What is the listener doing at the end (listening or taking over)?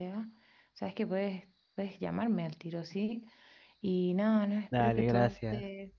listening